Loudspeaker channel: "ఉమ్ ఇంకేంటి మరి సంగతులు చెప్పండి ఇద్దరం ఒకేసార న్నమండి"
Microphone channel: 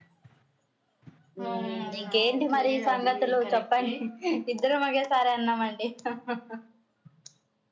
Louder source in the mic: echo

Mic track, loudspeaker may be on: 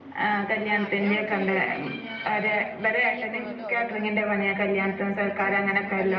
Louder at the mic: echo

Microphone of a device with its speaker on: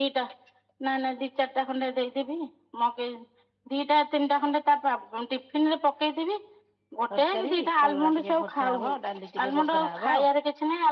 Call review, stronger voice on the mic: echo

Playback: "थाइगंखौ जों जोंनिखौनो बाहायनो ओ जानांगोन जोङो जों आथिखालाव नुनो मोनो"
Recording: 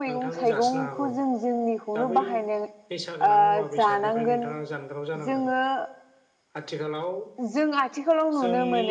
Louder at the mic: echo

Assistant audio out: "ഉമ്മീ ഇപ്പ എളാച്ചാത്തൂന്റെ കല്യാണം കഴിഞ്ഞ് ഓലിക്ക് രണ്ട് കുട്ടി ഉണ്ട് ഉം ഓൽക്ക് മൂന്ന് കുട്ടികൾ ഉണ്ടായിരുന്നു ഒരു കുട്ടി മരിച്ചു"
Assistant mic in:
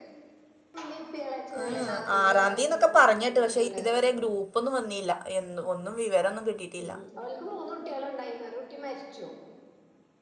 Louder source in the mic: user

